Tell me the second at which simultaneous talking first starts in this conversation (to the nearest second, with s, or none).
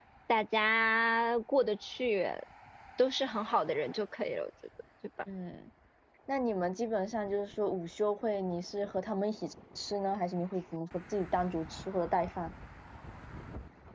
none